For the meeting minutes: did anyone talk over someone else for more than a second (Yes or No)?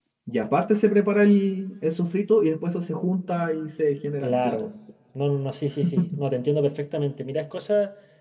No